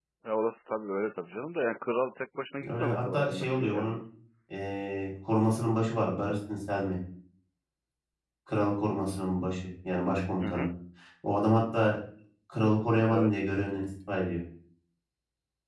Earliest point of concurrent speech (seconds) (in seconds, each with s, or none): 2.7 s